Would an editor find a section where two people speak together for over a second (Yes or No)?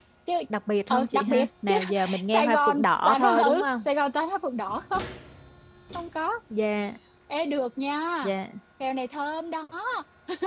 Yes